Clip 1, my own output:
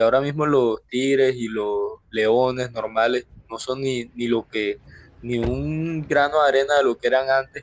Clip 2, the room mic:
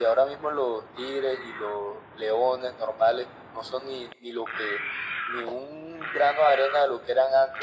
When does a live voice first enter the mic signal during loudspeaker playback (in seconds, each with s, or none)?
none